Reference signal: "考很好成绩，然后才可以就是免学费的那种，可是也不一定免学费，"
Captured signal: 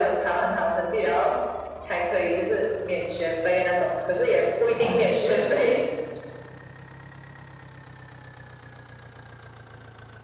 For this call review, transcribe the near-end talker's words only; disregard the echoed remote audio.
哦，

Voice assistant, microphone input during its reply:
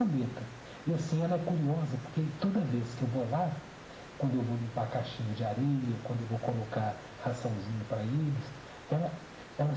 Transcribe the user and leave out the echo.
none

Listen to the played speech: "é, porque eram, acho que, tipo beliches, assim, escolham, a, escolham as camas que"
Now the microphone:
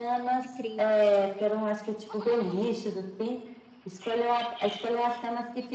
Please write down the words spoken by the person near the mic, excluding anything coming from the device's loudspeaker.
que triste.

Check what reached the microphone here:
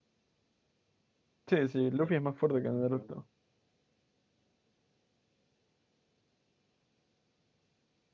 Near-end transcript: Sí, sí, Luffy es más fuerte que Naruto.

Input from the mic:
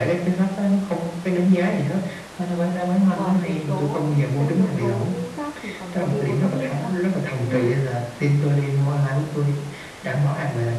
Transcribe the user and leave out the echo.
ngoài yếu tố những cái yếu tố khác thì còn có yếu tố tâm linh nữa à? tức là

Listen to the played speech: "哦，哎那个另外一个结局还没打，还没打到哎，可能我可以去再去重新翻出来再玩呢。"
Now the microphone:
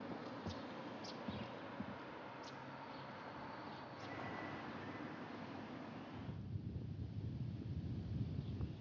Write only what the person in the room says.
none

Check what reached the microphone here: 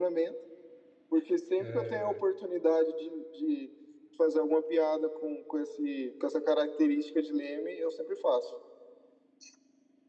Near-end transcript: é,

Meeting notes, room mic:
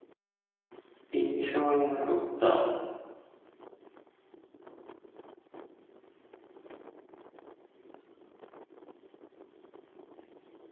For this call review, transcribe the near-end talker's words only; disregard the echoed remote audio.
印象に残った、

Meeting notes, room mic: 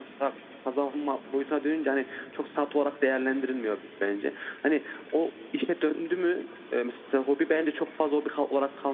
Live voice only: none

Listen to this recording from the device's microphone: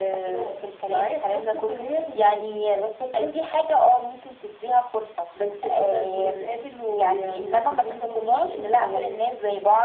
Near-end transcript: none

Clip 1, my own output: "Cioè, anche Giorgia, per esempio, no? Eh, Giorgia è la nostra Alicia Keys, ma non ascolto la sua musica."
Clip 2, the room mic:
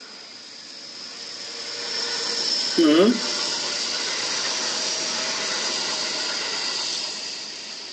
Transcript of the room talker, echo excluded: Mm.

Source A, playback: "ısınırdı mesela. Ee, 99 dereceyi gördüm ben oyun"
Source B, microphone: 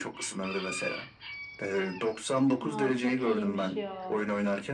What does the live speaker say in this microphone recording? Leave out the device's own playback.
Aa, çok iyiymiş ya.

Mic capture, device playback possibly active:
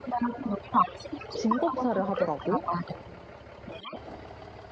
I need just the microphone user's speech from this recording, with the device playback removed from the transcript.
짐 검사를 하더라고.

